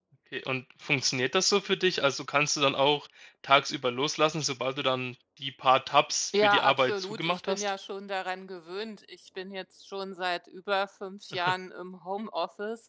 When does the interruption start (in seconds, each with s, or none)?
6.4 s